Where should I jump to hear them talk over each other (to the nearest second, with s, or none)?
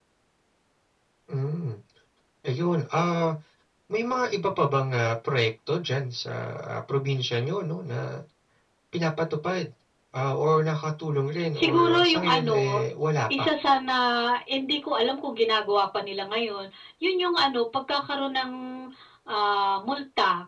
12 s